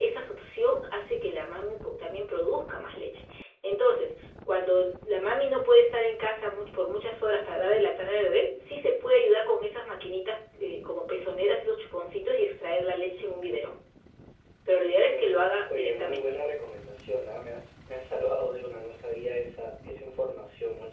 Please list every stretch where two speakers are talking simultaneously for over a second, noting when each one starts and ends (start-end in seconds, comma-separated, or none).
14.8-16.3